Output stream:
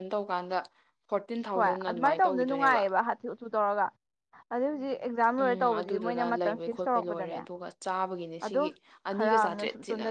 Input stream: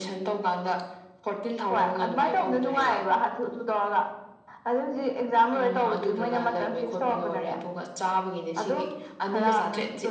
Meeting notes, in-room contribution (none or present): none